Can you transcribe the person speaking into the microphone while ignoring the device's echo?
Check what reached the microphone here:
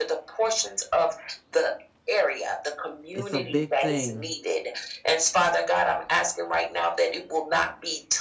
it's a big thing,

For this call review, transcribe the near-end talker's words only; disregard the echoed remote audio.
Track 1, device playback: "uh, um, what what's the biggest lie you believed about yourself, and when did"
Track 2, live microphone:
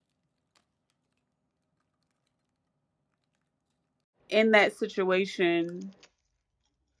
in that situation,

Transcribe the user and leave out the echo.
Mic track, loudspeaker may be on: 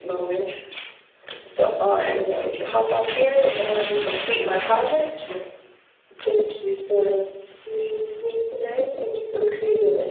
none

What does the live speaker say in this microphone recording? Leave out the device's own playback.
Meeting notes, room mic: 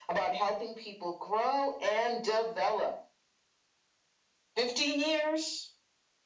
none

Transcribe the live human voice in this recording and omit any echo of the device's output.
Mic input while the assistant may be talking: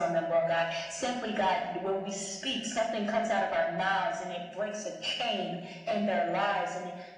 none

